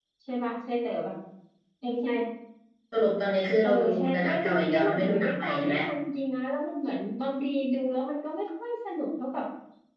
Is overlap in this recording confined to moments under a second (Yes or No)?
No